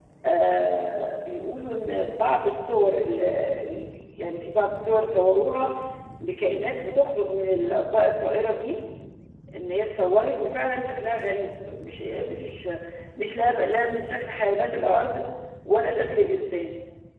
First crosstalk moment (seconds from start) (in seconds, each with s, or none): none